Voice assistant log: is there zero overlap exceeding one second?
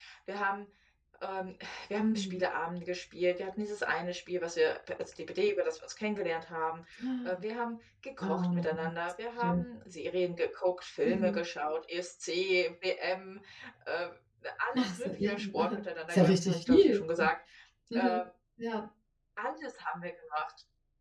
No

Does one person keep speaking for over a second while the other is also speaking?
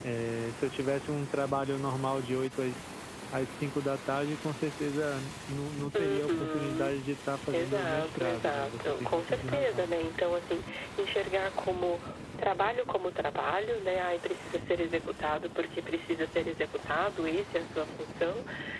Yes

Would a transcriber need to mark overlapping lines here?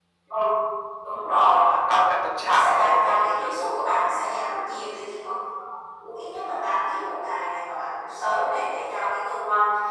Yes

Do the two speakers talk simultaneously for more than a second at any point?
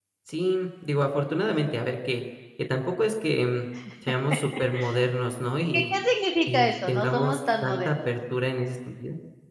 Yes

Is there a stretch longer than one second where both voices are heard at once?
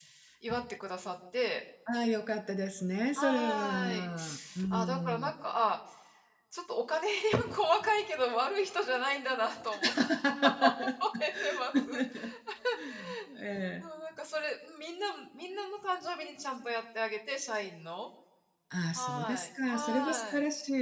Yes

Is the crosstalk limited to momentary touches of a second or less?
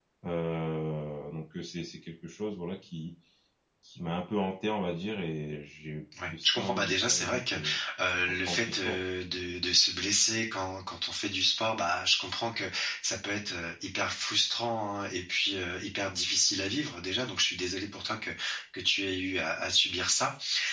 No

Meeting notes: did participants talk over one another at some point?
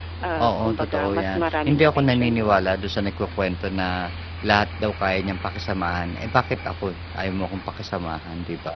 Yes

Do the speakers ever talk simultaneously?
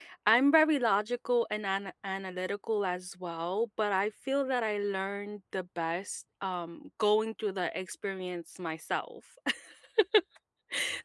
No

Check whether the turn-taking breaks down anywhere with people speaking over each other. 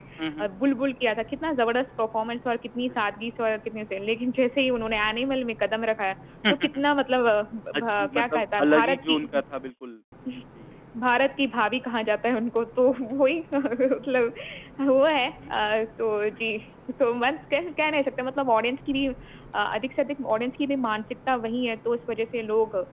Yes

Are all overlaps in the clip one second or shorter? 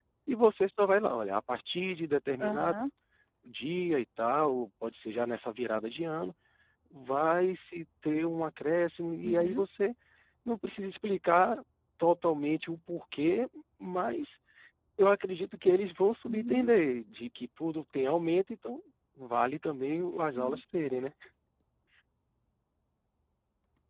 Yes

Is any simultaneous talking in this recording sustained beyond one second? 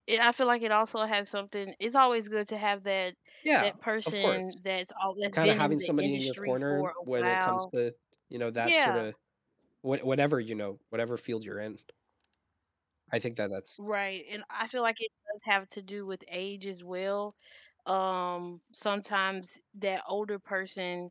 Yes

